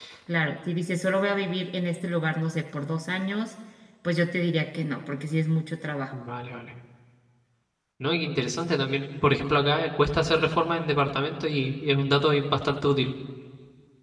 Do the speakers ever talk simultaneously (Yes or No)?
No